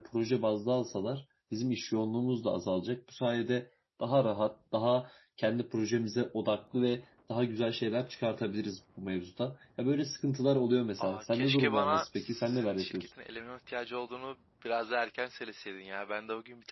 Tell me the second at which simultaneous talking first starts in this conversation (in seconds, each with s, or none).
11.0 s